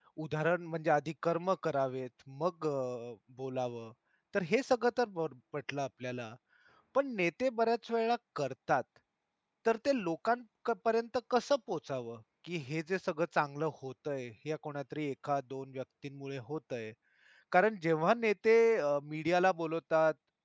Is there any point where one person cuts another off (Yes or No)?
No